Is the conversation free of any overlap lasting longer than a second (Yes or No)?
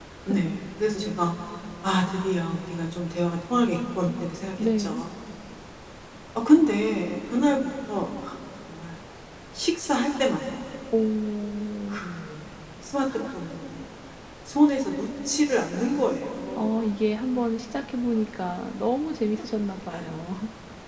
Yes